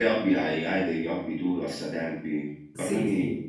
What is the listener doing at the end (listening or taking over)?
taking over